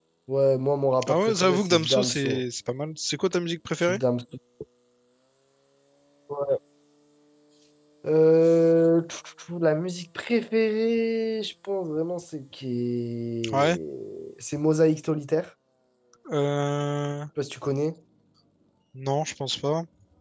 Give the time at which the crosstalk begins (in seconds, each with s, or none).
1.1 s